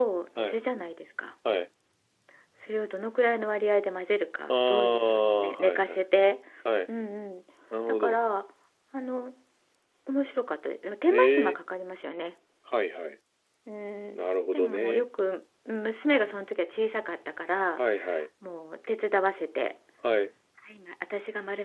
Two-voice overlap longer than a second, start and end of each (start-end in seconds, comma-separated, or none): 4.5-6.1